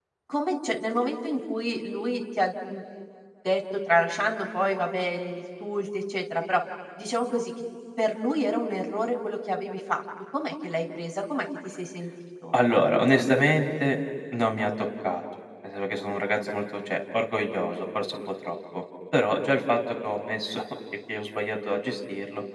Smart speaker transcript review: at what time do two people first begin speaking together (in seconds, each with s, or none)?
none